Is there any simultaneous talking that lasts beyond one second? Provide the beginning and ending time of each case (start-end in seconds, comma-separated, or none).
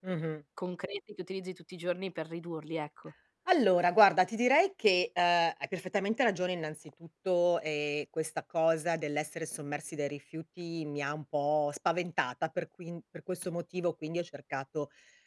none